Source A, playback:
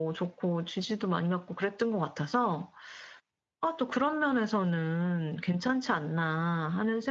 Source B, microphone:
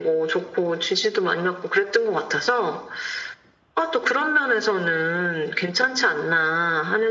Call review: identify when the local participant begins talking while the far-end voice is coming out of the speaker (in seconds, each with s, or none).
none